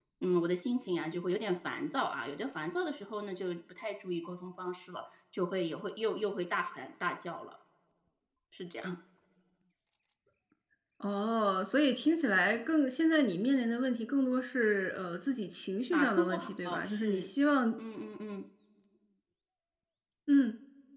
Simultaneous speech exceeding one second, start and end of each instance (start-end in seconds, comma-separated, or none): 15.9-17.3